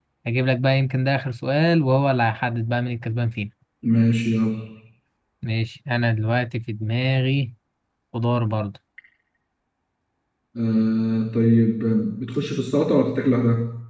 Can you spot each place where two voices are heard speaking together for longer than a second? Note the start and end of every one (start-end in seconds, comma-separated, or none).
none